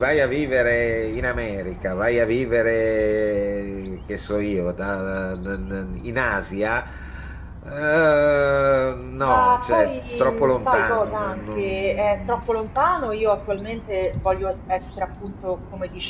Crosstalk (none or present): present